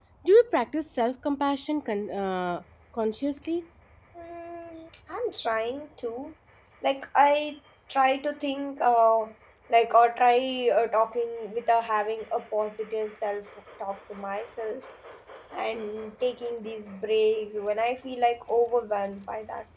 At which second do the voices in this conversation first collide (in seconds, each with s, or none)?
none